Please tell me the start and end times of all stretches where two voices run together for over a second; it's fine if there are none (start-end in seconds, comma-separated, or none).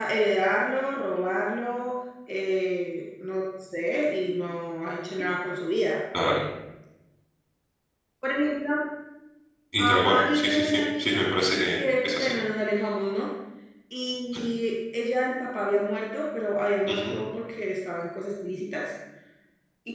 9.8-11.3